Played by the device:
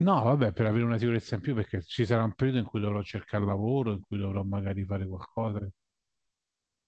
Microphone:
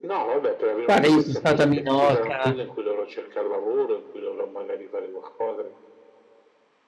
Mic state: both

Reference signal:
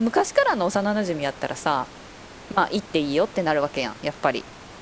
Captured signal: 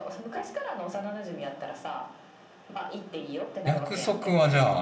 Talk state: both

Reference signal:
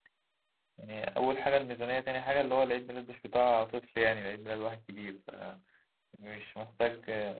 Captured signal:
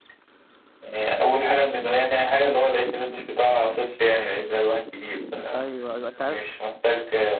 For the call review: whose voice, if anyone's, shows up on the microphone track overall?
both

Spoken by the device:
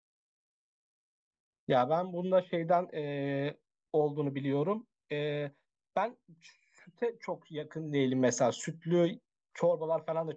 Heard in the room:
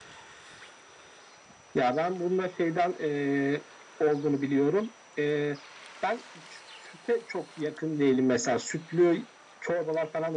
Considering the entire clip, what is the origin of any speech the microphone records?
echo only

